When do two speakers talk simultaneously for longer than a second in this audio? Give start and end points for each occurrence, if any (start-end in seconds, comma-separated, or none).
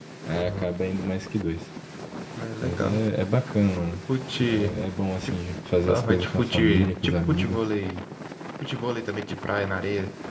5.9-7.6